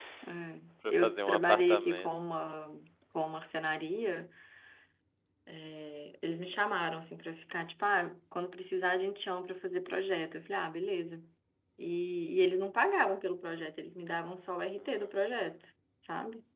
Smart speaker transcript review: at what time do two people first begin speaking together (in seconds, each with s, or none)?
0.9 s